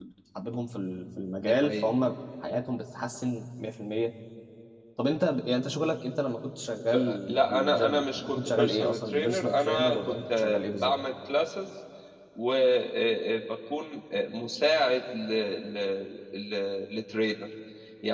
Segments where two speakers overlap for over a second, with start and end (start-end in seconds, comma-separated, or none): 6.9-10.9